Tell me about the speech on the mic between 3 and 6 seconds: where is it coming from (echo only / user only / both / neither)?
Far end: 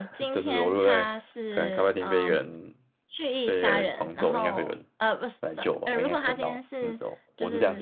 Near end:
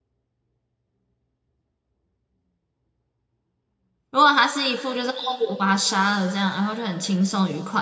user only